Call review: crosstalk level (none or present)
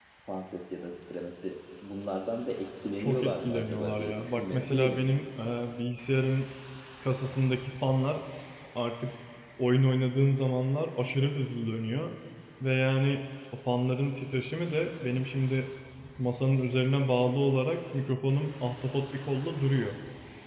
present